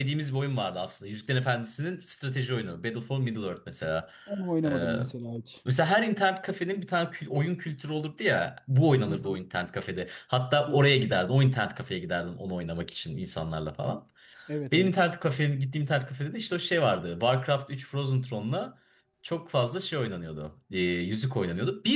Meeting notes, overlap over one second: none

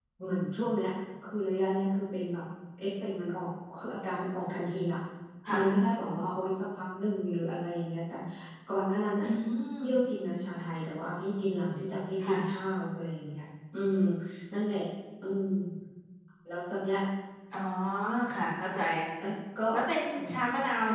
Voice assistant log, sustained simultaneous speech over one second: none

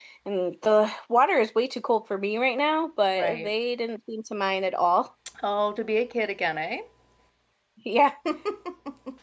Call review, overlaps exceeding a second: none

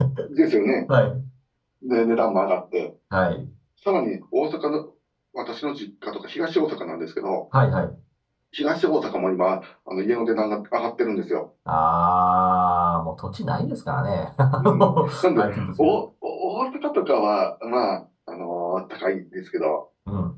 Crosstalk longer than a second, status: present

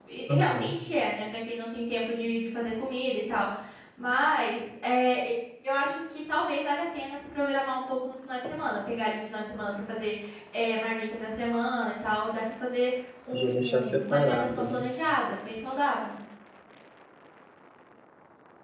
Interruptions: present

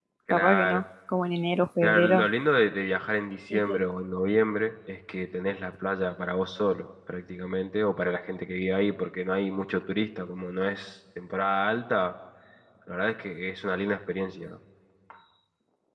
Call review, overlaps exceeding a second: none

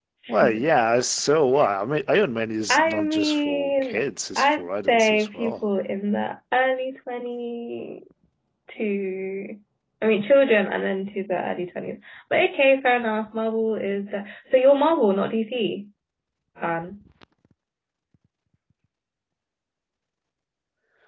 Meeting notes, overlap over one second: present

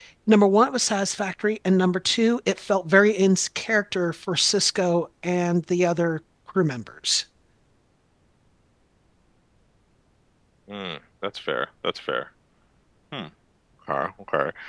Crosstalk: none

